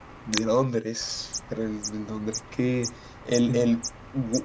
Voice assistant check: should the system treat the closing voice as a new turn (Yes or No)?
No